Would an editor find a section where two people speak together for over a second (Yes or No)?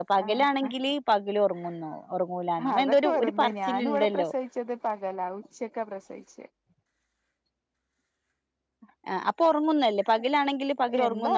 Yes